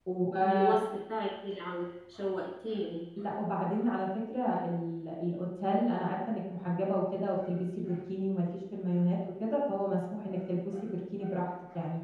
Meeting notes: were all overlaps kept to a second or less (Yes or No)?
Yes